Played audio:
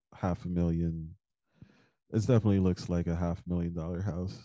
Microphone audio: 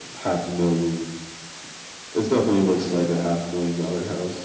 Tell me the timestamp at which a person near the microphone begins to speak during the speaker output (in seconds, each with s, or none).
none